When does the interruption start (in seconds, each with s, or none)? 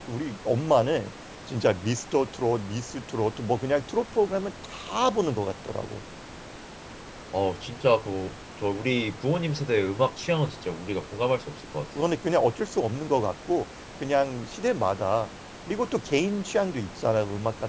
none